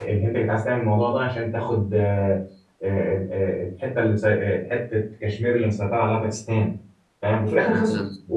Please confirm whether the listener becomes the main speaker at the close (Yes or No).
No